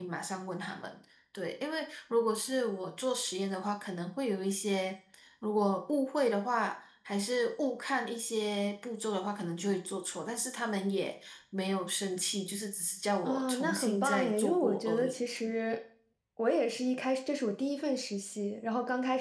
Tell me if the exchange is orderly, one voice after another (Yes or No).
No